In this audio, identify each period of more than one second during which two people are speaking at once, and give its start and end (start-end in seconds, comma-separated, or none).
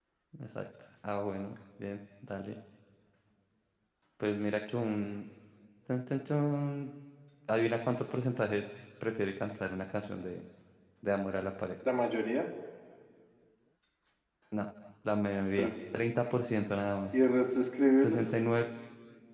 none